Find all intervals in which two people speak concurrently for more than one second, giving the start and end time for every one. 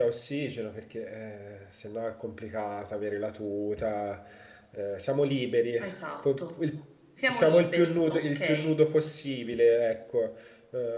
7.3-8.8

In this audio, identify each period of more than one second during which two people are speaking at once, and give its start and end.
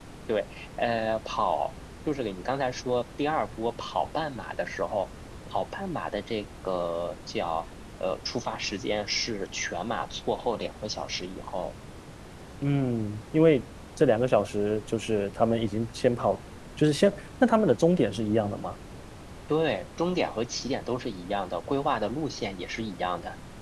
none

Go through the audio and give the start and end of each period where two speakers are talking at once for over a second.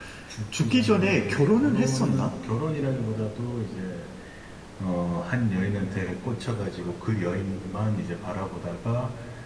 0.6-2.3

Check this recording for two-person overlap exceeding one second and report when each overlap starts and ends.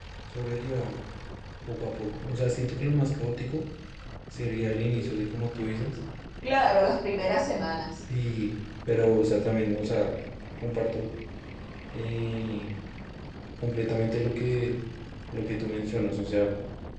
none

